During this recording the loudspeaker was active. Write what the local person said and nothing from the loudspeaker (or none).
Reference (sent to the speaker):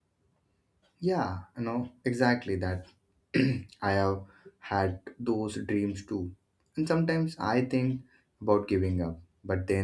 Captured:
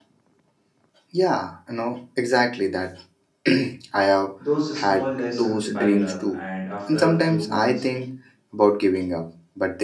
Those small lessons pile up, and after a few months,